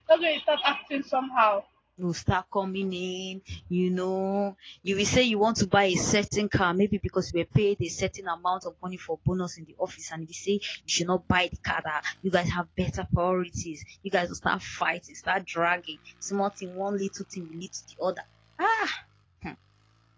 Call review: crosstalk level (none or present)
none